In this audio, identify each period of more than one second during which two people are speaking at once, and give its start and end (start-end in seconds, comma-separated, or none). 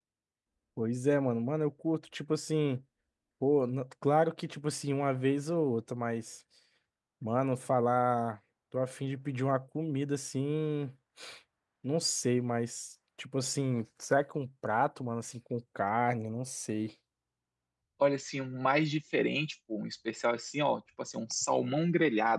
none